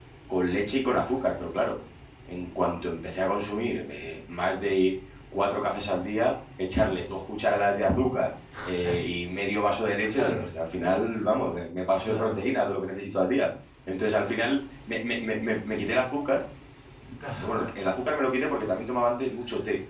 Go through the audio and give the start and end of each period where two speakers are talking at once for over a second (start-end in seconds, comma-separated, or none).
none